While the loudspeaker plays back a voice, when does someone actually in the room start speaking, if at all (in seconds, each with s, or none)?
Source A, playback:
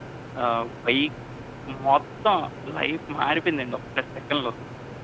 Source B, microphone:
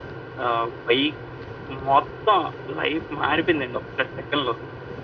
none